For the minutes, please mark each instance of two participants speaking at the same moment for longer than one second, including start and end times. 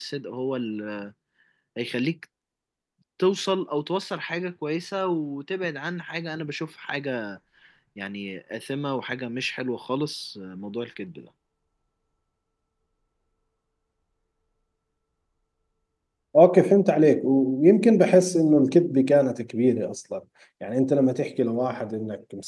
none

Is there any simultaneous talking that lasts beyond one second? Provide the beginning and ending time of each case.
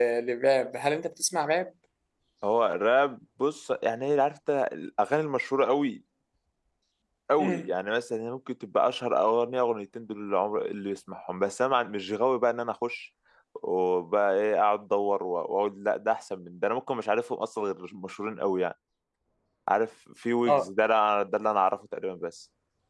none

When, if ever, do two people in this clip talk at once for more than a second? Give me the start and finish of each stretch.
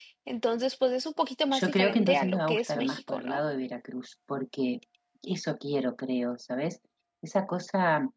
1.5-3.4

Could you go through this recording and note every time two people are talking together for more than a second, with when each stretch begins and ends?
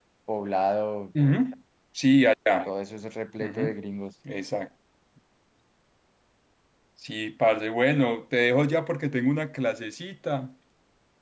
none

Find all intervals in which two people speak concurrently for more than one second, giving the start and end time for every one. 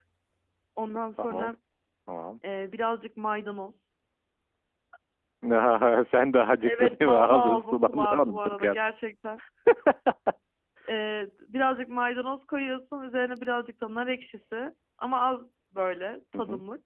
6.6-8.8

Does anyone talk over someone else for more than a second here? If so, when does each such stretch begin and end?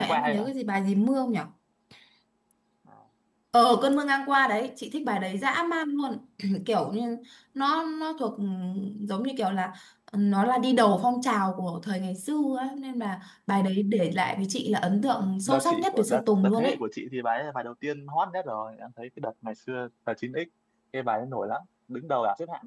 15.0-16.7

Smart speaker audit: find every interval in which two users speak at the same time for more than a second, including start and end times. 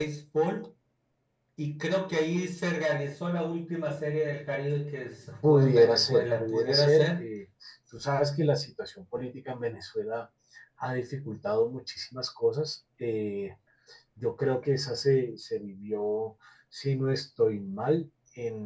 5.5-7.3

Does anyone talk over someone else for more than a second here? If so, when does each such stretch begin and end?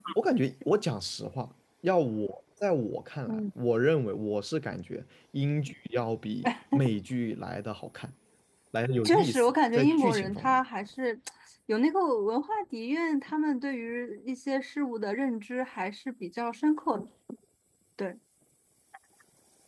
9.0-10.6

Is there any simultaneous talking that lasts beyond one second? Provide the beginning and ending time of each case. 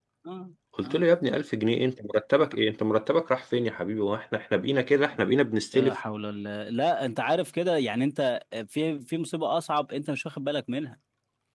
none

